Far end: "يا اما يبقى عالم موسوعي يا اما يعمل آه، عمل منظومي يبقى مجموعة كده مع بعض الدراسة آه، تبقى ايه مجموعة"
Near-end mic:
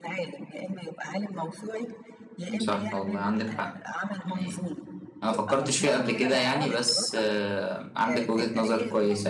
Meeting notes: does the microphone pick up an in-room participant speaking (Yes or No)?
Yes